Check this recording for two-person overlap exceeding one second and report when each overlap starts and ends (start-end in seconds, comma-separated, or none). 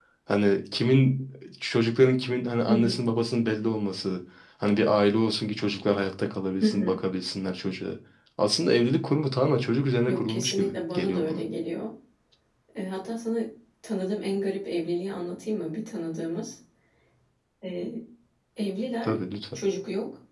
10.1-11.4